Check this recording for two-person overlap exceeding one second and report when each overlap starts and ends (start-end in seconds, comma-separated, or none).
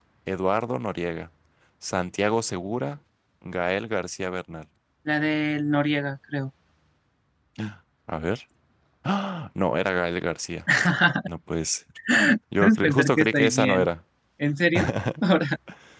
12.6-13.9